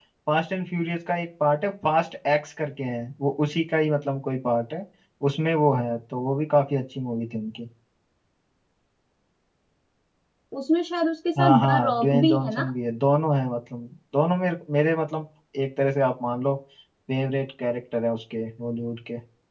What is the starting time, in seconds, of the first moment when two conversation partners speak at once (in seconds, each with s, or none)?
11.4 s